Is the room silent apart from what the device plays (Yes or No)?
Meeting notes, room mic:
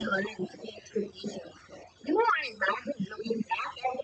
Yes